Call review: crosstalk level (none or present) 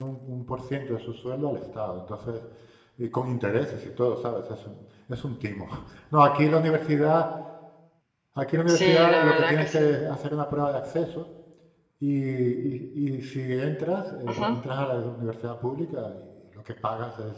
present